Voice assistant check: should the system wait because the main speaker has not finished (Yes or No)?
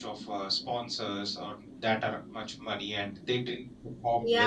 No